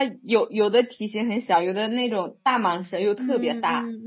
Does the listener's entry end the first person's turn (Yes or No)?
Yes